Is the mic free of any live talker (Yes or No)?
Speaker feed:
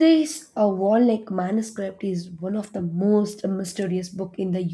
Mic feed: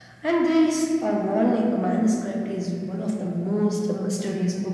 Yes